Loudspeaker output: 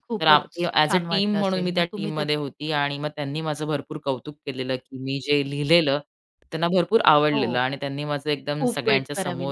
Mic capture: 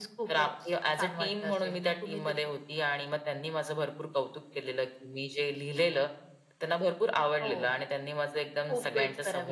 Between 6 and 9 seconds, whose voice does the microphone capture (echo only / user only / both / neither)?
echo only